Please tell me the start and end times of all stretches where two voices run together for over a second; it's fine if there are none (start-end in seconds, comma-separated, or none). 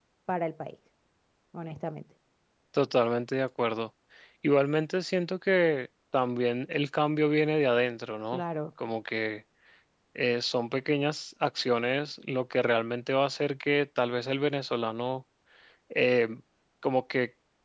none